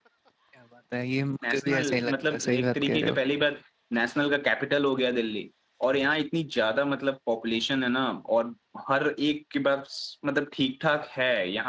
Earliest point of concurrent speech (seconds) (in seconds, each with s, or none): 1.4 s